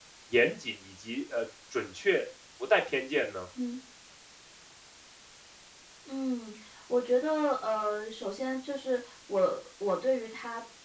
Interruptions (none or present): none